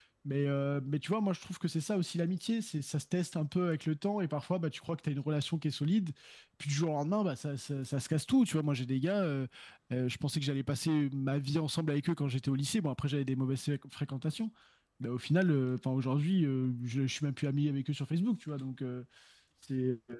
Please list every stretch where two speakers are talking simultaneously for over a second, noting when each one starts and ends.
none

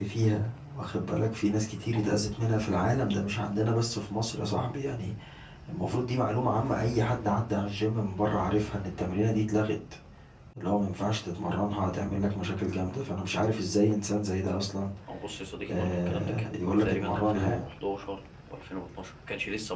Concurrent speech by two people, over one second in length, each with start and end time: 15.7-17.7

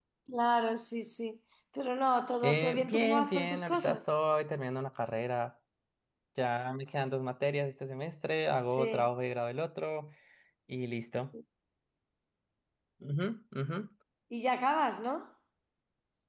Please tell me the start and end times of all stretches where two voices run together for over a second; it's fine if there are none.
2.4-4.0

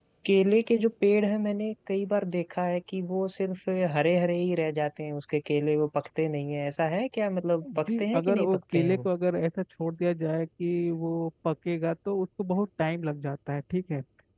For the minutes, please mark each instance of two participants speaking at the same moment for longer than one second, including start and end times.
7.9-9.1

